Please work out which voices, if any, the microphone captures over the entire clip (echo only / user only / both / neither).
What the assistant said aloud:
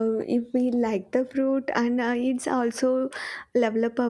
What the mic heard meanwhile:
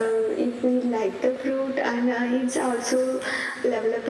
echo only